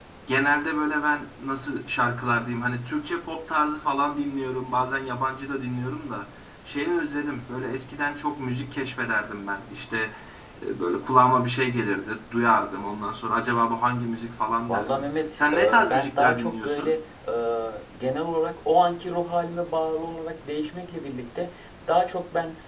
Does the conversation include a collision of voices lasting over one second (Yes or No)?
Yes